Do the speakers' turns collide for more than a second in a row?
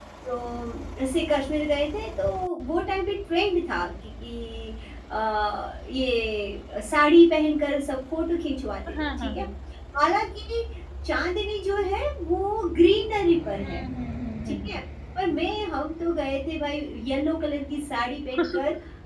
No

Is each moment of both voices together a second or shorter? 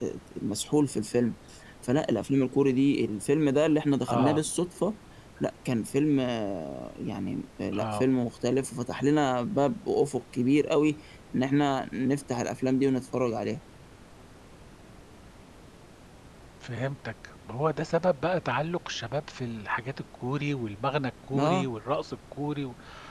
Yes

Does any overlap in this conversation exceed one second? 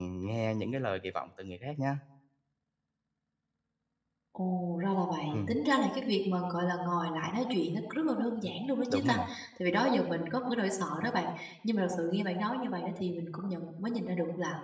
No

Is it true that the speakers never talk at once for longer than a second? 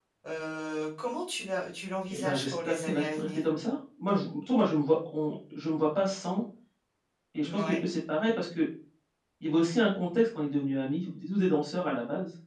No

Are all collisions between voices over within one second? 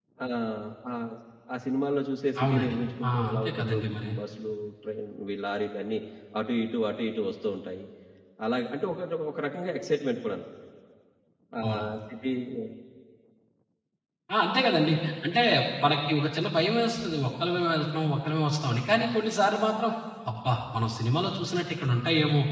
No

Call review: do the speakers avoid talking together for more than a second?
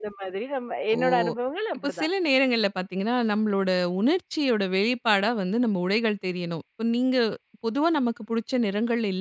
Yes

